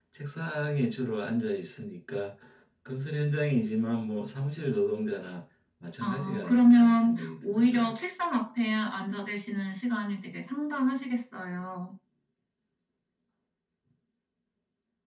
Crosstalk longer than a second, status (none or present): present